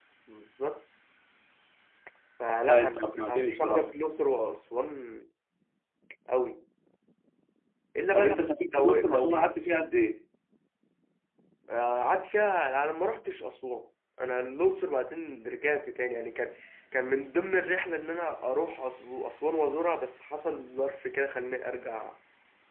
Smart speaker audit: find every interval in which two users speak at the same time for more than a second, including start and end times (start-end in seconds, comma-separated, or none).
2.6-3.9, 8.1-9.5